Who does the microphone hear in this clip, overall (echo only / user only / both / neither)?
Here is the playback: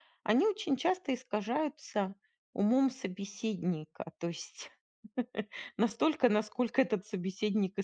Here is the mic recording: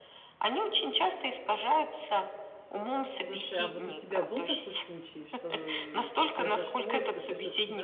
both